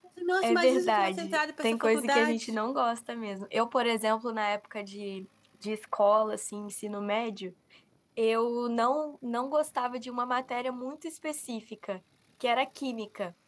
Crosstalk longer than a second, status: present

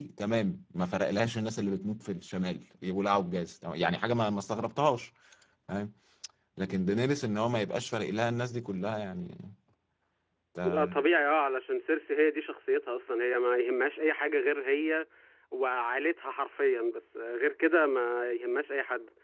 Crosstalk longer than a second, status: none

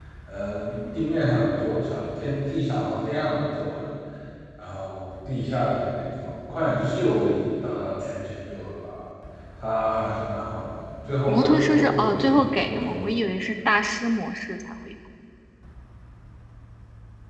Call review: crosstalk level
present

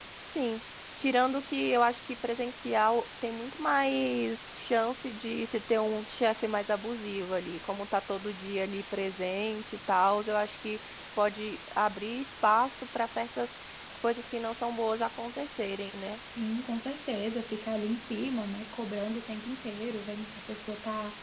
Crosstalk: none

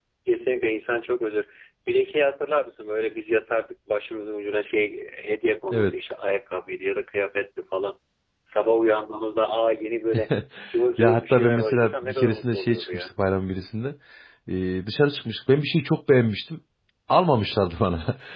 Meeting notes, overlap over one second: present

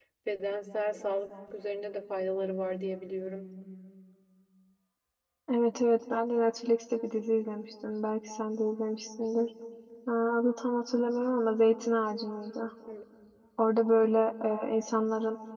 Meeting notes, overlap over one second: none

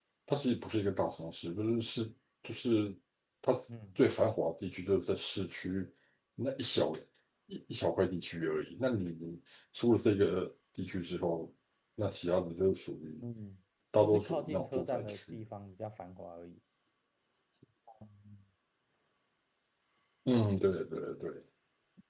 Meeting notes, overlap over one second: present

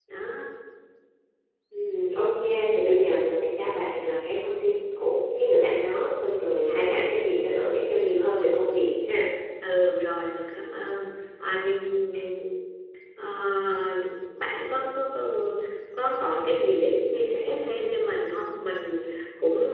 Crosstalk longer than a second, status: none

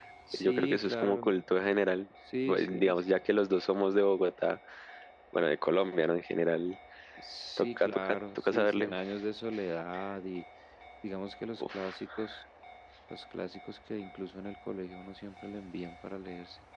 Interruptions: present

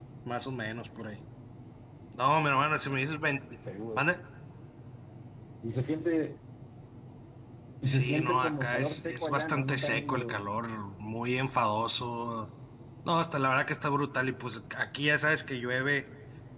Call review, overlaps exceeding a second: present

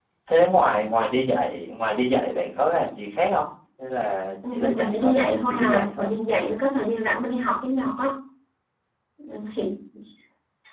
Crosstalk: present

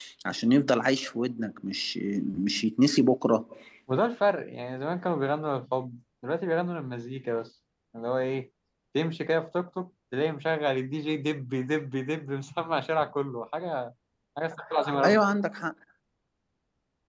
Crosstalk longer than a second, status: none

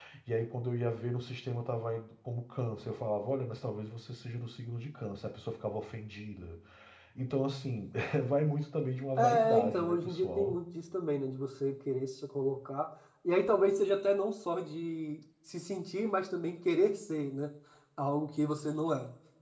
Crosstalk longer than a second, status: present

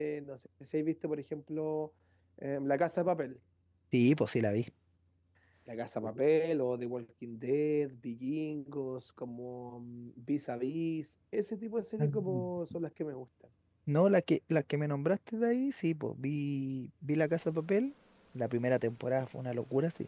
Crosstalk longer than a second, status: none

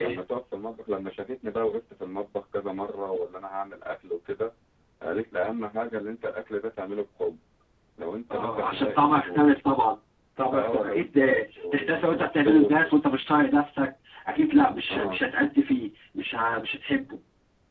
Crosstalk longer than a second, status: present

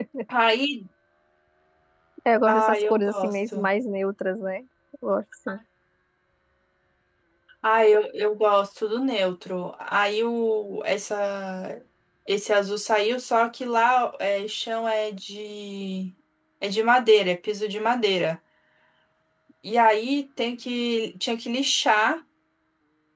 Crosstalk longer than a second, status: present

